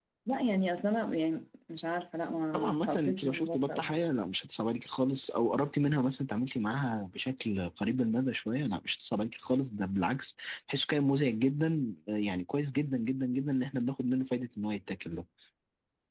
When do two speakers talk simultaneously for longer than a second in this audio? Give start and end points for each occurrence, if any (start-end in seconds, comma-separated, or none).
2.5-4.1